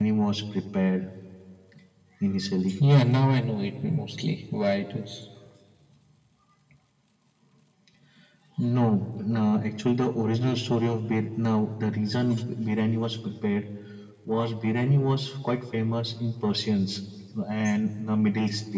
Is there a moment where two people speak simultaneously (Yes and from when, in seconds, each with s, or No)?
No